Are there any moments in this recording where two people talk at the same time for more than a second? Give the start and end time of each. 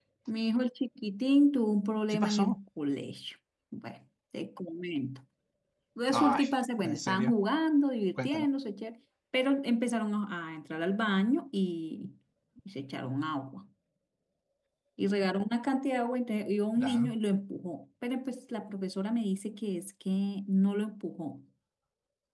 none

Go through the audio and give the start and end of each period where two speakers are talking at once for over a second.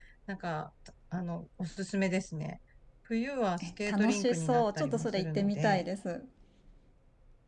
3.6-5.8

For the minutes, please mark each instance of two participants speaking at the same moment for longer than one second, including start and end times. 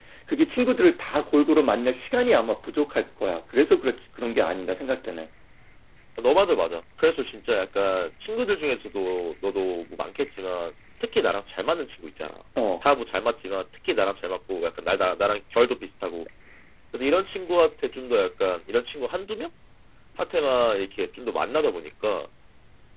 none

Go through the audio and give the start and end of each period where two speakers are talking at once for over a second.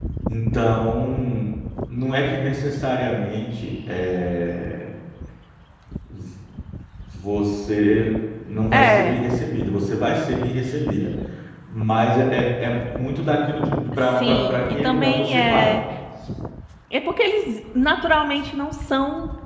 14.2-15.8

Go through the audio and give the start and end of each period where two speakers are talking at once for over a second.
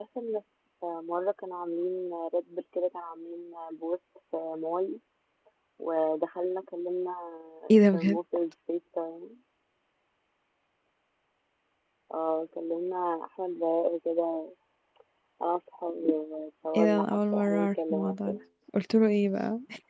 16.8-18.4

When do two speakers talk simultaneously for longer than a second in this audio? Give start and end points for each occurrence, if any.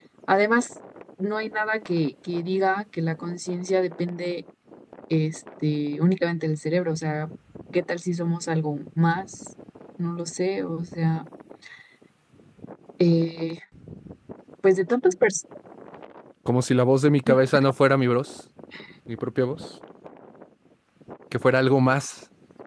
none

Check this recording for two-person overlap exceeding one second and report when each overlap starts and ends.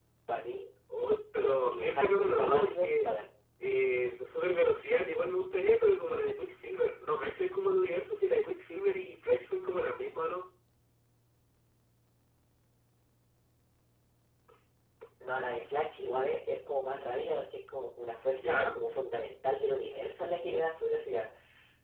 0.9-3.1

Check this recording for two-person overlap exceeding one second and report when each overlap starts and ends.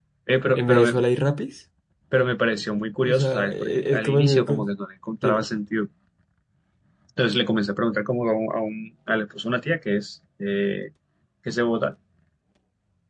3.1-4.7

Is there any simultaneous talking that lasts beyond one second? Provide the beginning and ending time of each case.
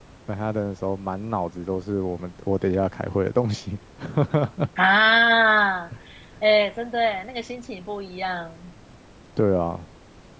none

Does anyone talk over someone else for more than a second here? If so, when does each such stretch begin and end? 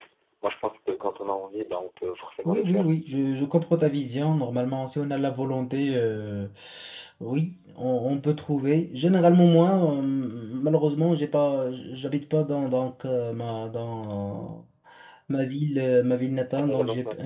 none

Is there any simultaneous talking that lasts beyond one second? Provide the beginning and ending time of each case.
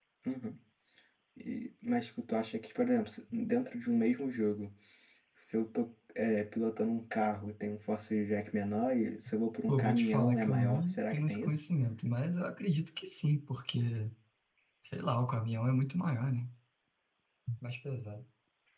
9.7-11.6

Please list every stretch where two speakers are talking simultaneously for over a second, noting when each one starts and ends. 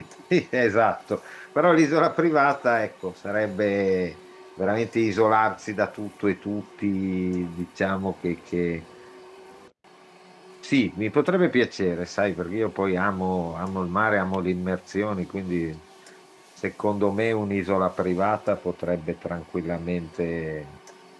none

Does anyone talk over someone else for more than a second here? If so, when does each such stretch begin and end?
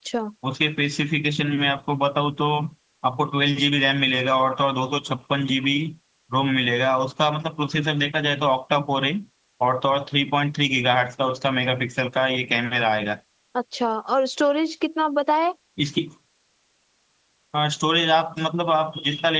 none

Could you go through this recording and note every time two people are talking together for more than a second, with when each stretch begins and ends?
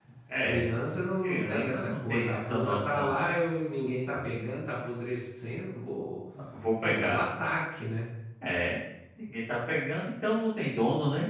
1.2-3.1

